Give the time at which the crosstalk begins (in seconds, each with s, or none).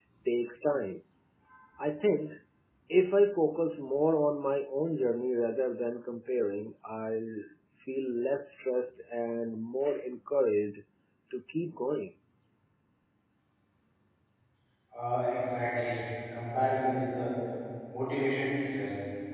none